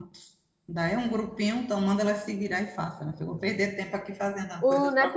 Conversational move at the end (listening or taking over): taking over